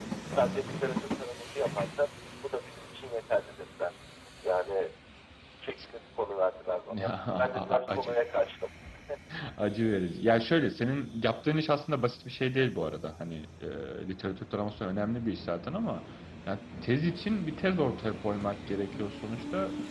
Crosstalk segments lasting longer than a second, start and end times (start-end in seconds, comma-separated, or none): 7.0-8.2